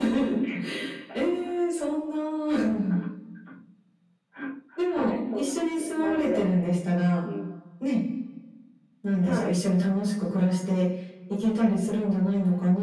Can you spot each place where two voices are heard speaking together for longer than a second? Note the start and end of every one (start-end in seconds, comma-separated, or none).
4.9-6.4